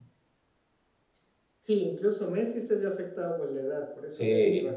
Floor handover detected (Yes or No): Yes